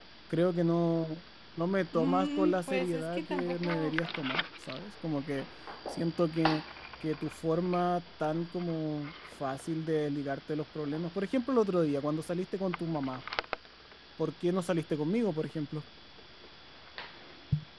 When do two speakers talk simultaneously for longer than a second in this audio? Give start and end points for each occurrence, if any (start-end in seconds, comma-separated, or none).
1.9-4.0